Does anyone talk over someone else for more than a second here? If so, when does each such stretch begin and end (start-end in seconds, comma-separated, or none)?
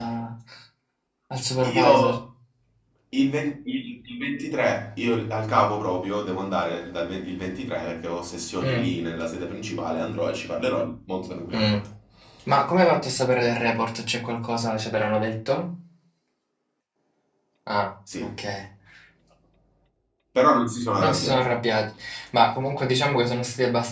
none